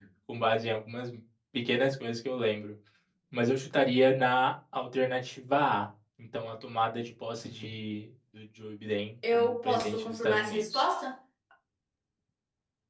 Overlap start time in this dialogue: 9 s

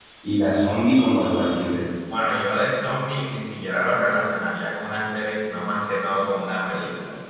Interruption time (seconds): none

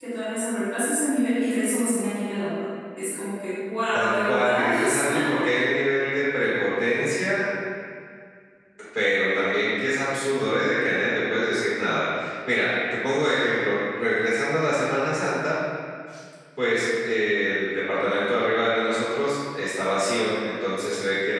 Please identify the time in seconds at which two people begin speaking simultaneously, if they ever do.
4 s

